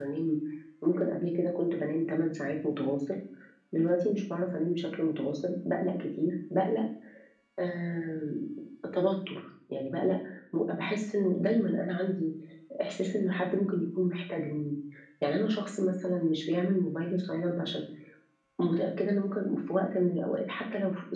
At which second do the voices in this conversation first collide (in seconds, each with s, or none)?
none